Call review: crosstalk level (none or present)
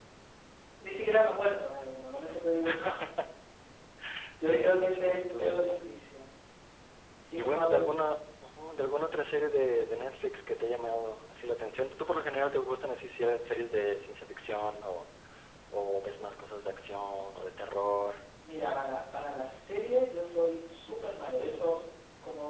present